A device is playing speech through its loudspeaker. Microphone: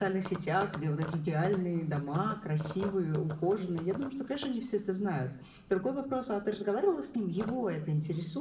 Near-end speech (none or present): none